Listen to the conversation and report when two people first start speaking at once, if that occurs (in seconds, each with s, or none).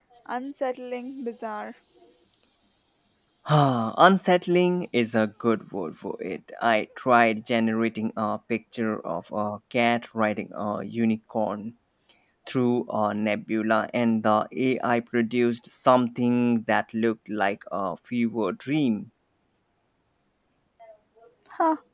none